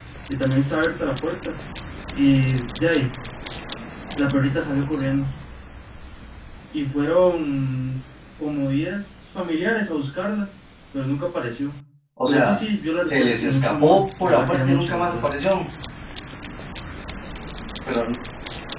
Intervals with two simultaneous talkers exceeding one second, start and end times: 13.1-15.2

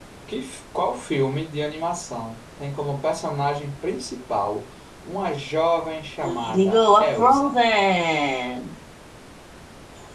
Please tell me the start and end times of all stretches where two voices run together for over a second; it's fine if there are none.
6.2-7.6

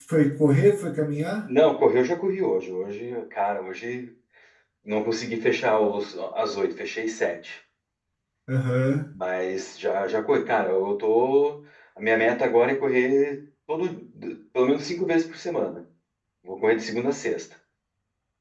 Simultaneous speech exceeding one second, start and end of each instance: none

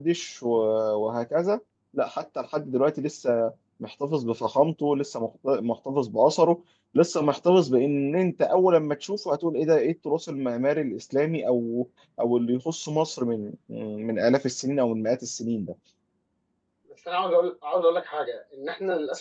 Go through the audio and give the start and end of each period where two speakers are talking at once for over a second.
none

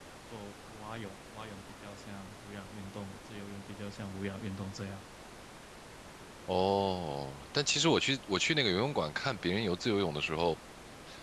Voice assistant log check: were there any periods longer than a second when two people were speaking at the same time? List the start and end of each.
none

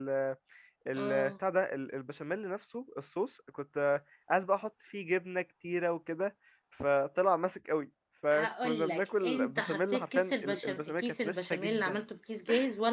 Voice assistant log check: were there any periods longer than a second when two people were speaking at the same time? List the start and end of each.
8.3-12.0

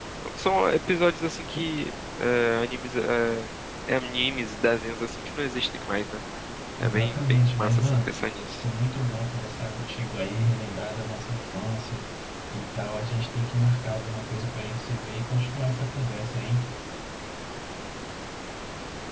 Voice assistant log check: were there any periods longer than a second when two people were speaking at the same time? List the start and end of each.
6.8-8.1

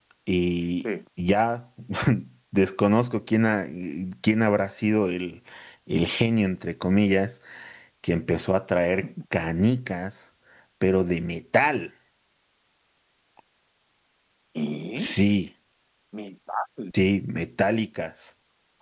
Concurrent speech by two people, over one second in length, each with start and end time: none

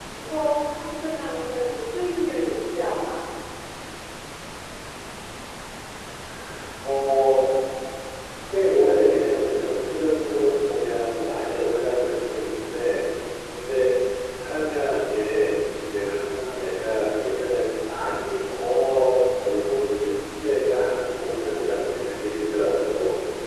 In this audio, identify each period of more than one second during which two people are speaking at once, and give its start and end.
none

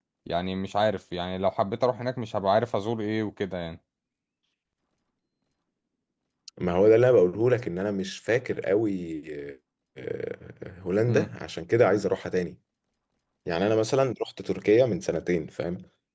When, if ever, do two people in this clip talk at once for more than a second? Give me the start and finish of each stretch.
none

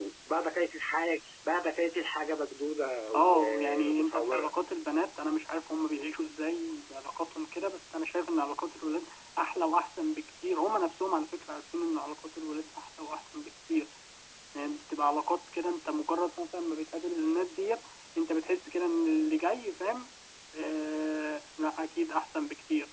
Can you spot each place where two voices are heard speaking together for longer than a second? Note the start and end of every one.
3.1-4.5

